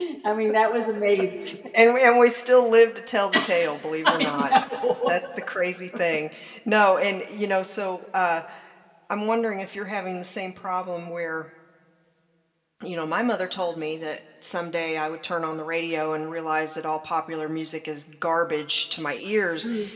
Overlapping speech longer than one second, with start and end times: none

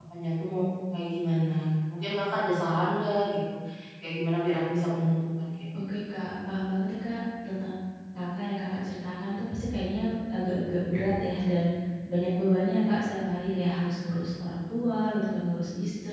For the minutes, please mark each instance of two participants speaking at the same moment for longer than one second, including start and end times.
none

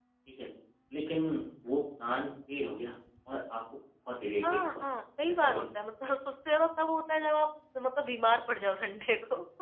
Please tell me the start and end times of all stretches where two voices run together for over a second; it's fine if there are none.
none

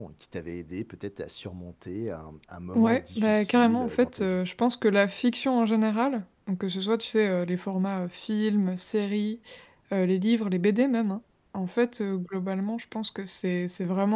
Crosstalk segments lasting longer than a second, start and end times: 2.7-4.4

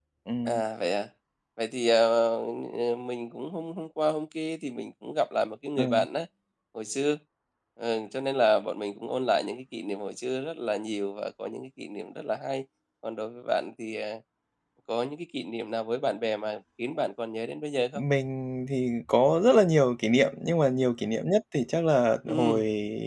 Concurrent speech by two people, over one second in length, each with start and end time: none

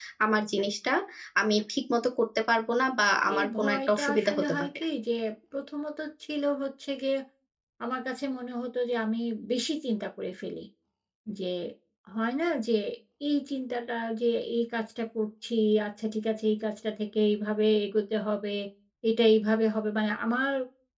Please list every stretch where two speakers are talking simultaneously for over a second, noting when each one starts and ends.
3.4-4.8

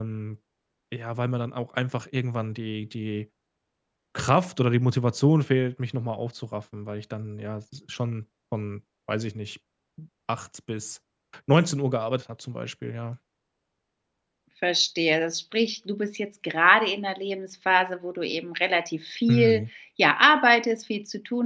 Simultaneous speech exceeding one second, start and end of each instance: none

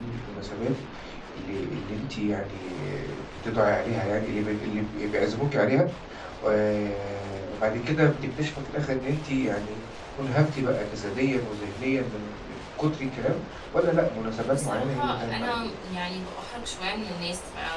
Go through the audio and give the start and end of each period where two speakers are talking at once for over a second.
14.5-15.7

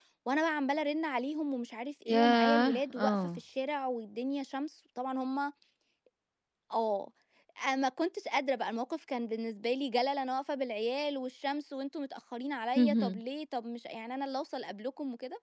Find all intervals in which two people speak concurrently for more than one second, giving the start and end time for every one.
2.1-3.4

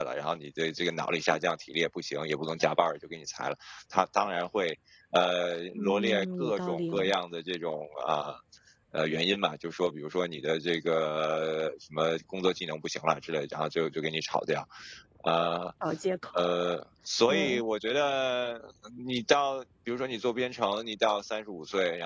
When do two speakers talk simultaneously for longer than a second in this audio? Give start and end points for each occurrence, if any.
5.8-7.0

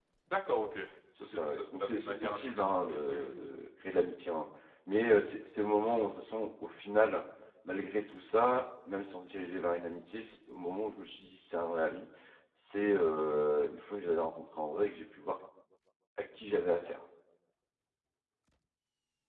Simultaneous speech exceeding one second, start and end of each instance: 1.2-3.6

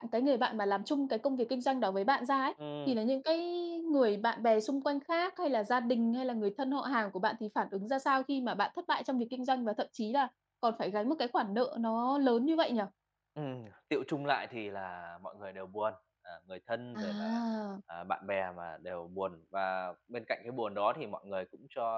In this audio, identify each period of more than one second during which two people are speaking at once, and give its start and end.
none

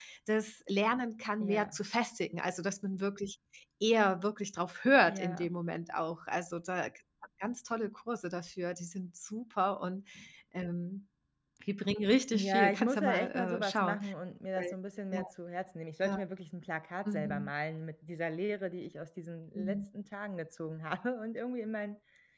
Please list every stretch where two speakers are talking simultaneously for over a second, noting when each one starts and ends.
12.3-14.0

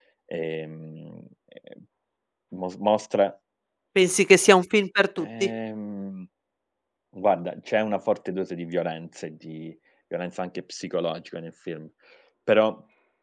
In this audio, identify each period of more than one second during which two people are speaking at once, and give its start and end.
none

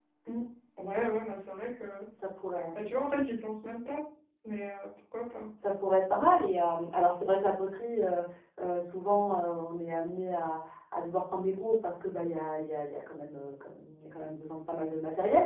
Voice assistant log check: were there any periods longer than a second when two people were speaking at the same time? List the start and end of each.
none

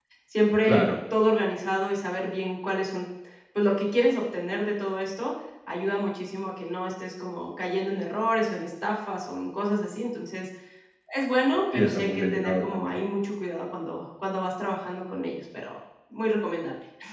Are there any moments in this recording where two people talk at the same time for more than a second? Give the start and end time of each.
11.7-13.0

